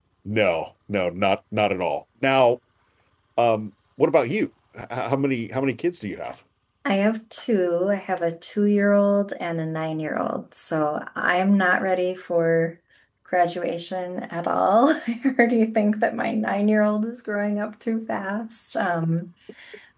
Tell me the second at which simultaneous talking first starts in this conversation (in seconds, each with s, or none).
none